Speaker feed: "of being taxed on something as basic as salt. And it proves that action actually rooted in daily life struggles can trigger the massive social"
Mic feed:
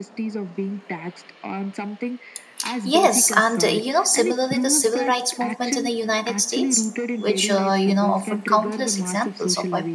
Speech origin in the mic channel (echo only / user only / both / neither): both